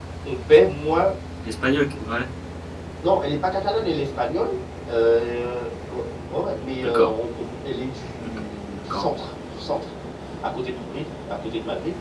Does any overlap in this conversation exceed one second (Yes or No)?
No